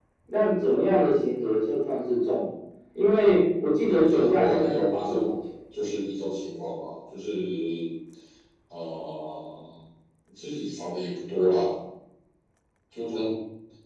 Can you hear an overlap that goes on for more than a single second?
Yes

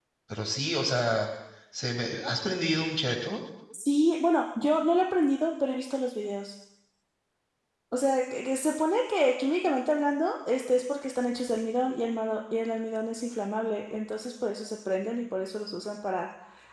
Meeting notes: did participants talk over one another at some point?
No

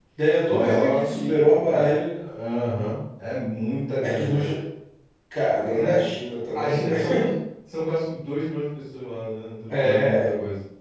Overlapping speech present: Yes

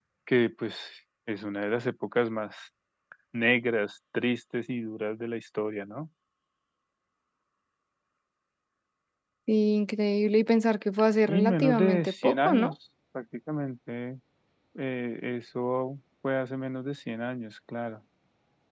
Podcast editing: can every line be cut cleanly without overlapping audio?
No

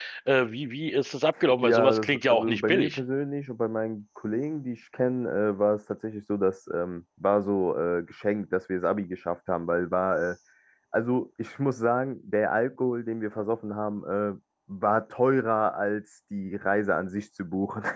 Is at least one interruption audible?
Yes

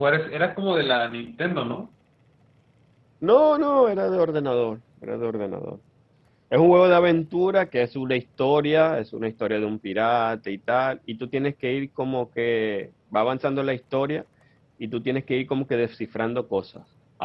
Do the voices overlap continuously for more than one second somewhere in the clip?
No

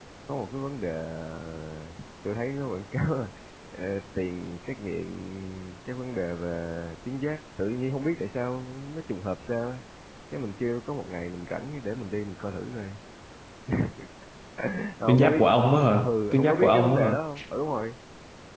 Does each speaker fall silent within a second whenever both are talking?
No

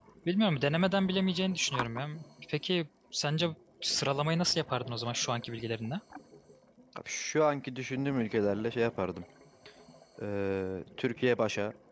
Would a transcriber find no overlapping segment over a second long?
Yes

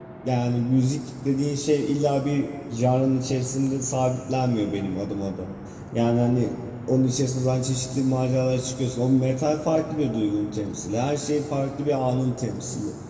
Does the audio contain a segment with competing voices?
No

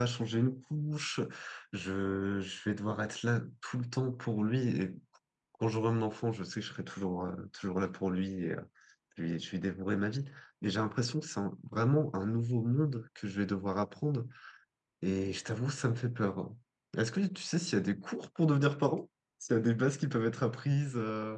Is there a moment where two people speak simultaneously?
No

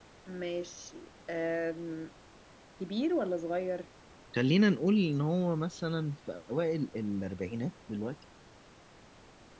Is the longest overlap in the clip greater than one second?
No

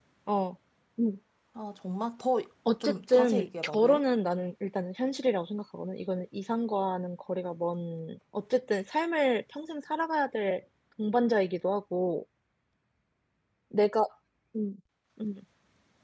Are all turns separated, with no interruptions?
No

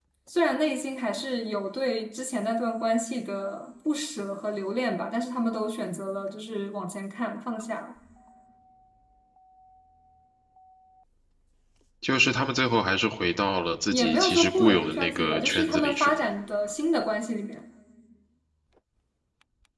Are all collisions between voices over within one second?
No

